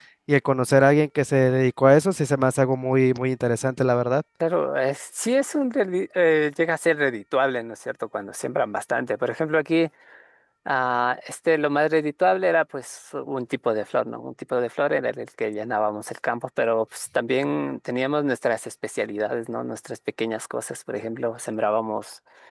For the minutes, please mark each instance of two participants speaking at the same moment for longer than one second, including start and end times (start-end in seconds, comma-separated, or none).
none